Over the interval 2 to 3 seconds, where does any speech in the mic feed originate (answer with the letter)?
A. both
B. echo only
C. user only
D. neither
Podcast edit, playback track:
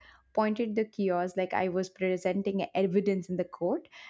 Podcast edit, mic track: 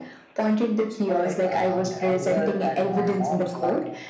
A